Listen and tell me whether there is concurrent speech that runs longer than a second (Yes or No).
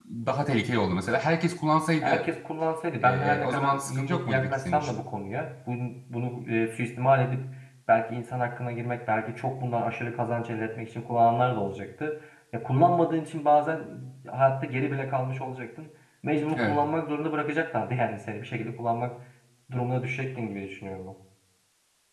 Yes